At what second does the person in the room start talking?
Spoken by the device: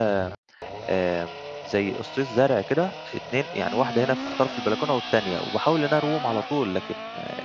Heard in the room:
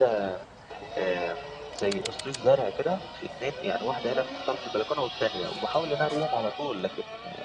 none

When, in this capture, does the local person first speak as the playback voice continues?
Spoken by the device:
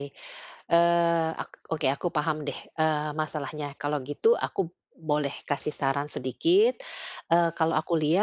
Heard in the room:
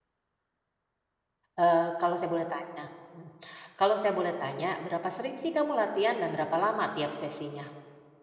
1.6 s

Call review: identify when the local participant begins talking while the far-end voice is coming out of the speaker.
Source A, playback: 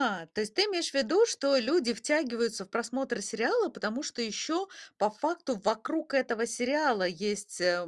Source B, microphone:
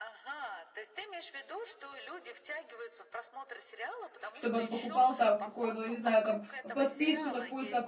4.3 s

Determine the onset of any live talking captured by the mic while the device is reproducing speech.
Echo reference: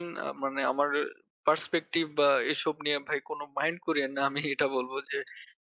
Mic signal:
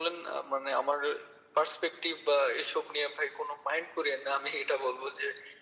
none

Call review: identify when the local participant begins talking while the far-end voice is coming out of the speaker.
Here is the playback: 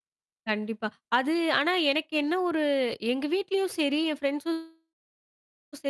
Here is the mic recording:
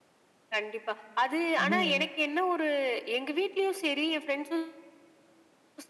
1.6 s

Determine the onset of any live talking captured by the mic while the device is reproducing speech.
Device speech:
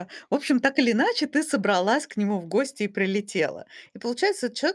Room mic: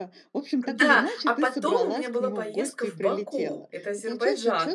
0.7 s

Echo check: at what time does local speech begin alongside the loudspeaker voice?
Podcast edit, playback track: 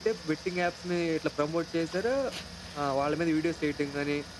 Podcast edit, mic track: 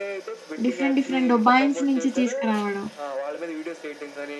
0.6 s

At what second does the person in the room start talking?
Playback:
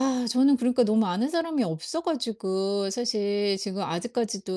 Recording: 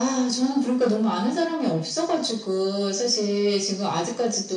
none

